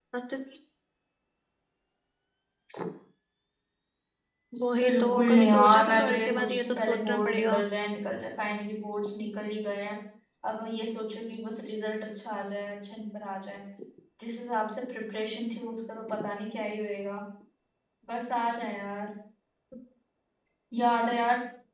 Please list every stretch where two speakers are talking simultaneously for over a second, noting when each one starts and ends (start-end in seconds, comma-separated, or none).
4.8-7.6